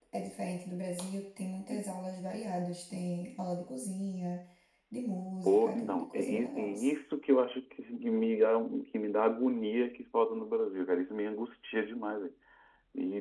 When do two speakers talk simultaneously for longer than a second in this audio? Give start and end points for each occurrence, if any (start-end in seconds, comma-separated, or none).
5.4-6.9